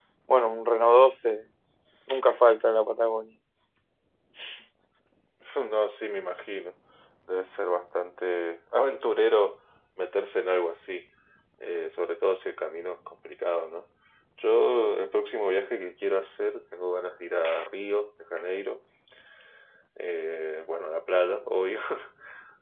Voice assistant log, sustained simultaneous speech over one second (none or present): none